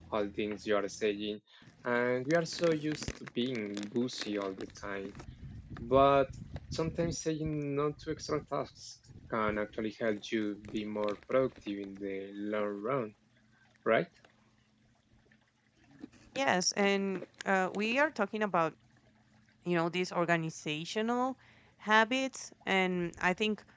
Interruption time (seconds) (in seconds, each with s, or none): none